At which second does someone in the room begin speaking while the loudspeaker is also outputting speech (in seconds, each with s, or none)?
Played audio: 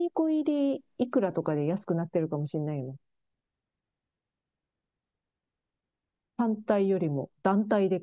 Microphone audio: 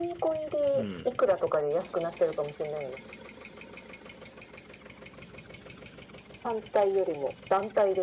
0.7 s